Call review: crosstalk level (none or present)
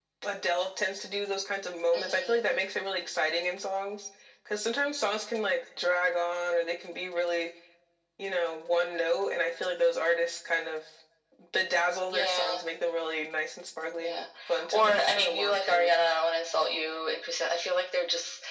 present